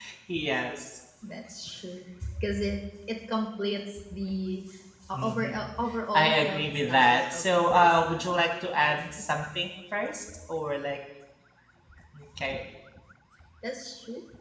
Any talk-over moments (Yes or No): Yes